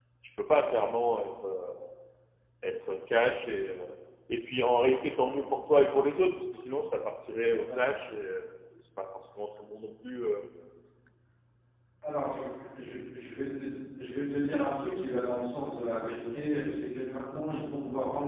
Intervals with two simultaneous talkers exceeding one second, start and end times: none

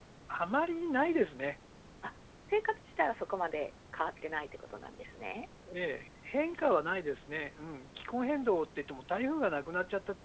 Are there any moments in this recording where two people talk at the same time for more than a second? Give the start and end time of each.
none

